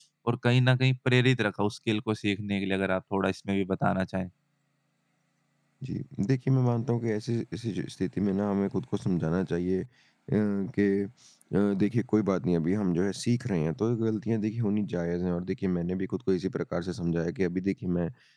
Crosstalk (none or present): none